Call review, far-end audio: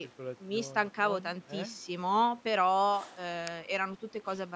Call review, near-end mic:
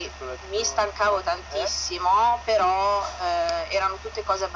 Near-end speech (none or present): none